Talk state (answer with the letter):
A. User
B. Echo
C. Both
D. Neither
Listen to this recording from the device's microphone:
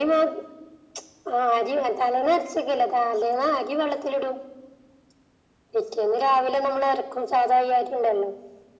B